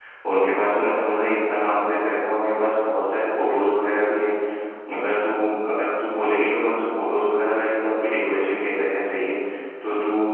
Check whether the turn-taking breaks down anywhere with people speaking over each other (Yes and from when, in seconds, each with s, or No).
No